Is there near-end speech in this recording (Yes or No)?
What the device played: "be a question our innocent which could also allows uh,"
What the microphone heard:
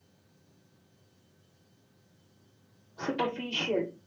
Yes